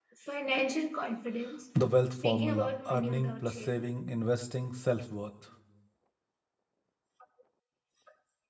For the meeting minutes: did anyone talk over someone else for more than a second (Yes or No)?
Yes